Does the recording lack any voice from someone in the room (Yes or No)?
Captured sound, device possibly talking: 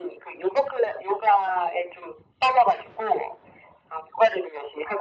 Yes